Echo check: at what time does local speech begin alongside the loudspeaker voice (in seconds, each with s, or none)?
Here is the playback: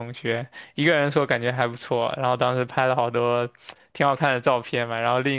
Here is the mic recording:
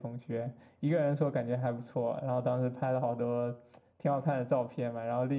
none